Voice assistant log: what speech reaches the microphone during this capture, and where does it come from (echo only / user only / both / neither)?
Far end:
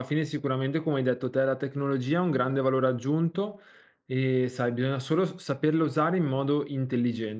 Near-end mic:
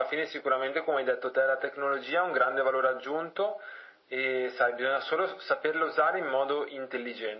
echo only